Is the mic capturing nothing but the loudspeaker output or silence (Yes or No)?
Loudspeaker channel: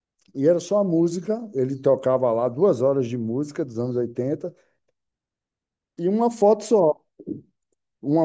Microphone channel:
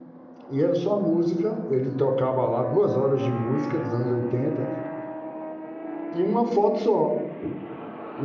Yes